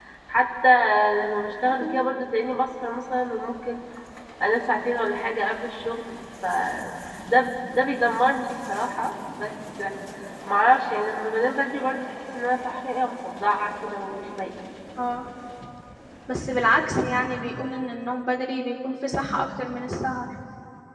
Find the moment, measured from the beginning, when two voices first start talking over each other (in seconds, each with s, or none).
none